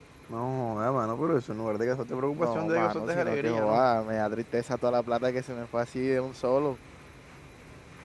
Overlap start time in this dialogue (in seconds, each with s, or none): 2.4 s